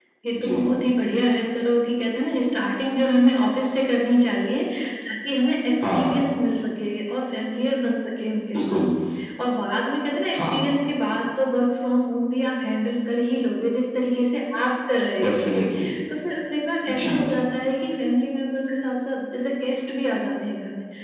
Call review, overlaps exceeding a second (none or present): none